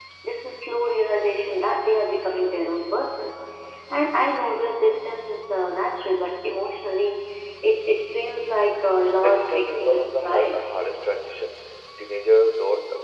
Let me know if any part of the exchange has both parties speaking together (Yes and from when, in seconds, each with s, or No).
Yes, from 9.2 s